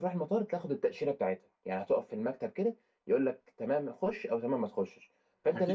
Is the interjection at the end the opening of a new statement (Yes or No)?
No